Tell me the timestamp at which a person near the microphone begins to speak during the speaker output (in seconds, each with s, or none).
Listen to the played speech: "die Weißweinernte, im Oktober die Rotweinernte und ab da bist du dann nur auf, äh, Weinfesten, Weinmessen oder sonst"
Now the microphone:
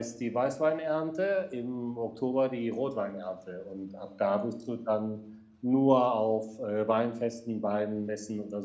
none